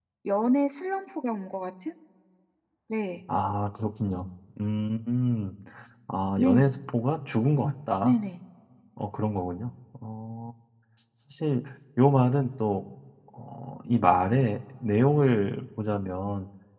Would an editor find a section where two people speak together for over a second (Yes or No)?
No